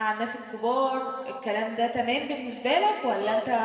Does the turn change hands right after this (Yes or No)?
Yes